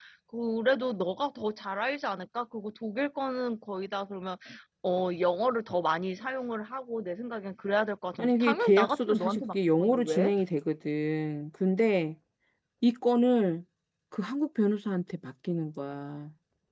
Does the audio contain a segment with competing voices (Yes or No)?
Yes